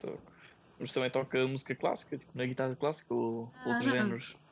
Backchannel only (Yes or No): No